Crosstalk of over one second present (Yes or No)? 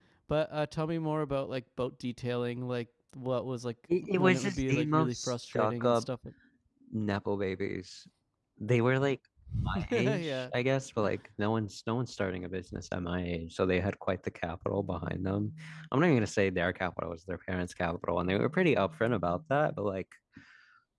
Yes